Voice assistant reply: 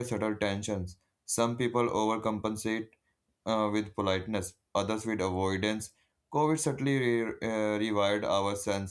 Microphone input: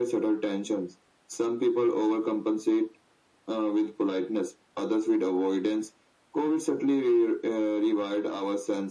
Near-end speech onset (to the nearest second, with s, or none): none